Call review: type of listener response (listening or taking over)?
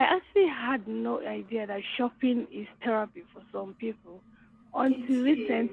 listening